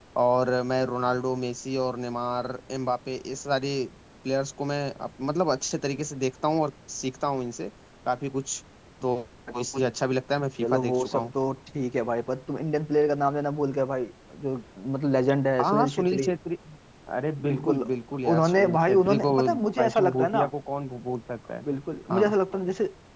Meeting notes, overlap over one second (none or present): present